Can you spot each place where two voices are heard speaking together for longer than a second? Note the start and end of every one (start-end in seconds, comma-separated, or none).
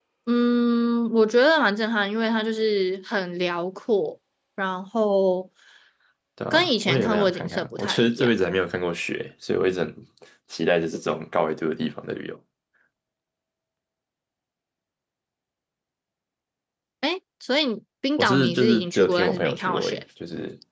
6.5-8.3, 18.2-20.0